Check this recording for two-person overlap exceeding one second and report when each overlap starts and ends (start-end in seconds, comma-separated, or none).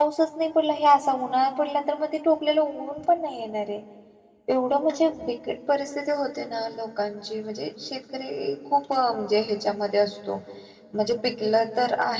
none